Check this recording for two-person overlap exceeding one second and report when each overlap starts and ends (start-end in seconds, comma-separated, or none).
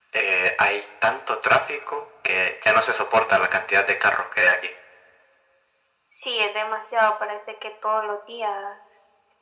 none